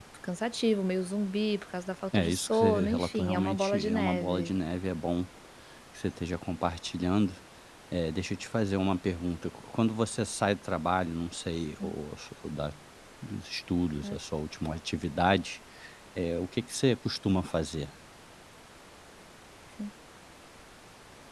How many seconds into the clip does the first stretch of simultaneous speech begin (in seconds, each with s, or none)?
2.1 s